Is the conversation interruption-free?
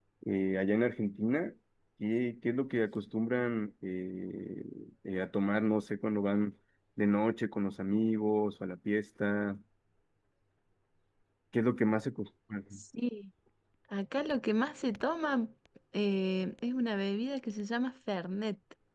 Yes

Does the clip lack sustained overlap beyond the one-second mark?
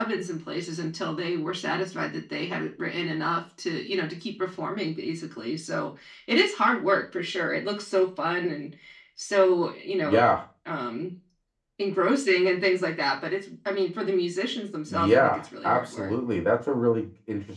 No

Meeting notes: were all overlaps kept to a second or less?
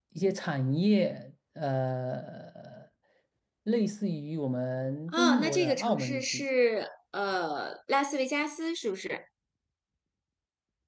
No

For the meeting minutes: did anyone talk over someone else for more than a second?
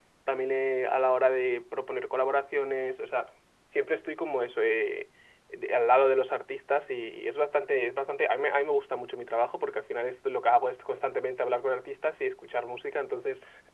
No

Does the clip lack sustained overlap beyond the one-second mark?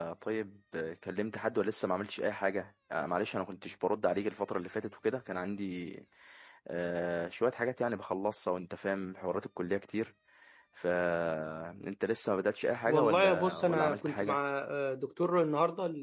No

